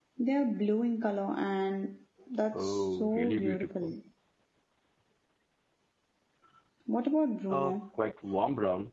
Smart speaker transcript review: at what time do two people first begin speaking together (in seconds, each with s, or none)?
2.5 s